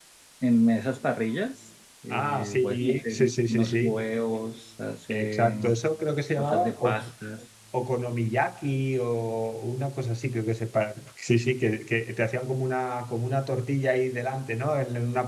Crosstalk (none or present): present